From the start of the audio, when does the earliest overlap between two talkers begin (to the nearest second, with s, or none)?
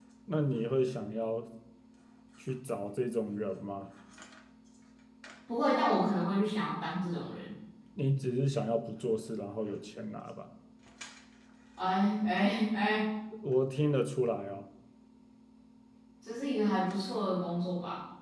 none